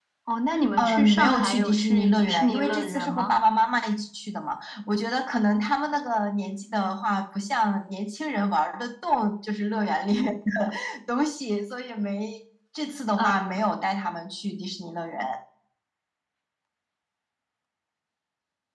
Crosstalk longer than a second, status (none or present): present